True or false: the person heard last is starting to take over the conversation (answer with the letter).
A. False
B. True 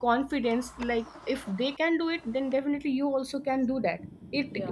A